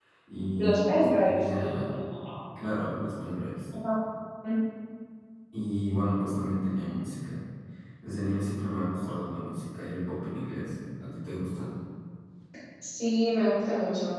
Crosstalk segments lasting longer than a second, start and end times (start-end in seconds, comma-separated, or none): 0.6-2.0